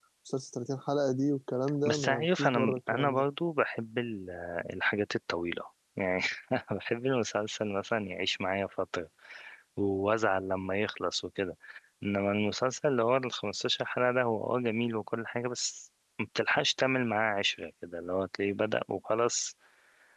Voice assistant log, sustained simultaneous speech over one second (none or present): present